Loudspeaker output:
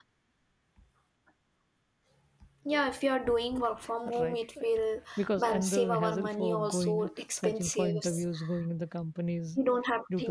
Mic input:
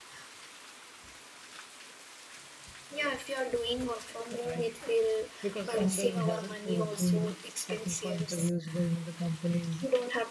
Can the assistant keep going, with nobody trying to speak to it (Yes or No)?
Yes